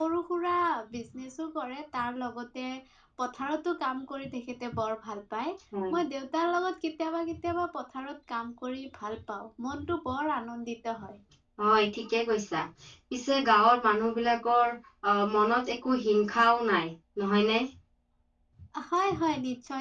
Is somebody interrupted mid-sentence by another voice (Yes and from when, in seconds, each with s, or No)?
No